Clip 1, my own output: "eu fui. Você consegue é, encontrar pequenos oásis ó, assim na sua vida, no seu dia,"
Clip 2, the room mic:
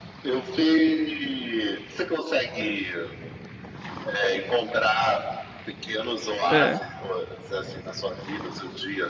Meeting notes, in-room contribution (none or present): present